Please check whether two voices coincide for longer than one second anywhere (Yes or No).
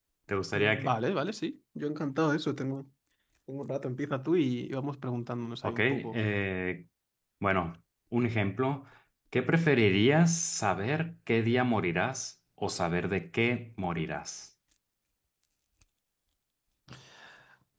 No